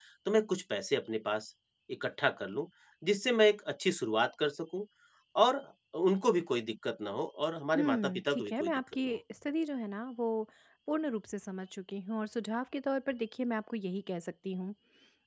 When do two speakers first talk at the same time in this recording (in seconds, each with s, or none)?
7.8 s